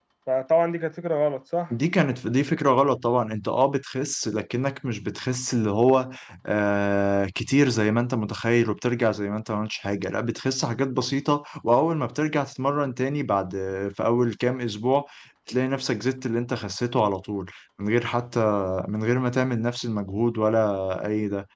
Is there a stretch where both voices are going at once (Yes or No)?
No